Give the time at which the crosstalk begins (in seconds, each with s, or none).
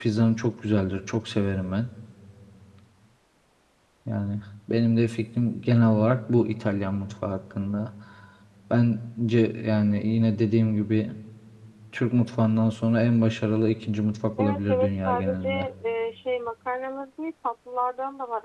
14.4 s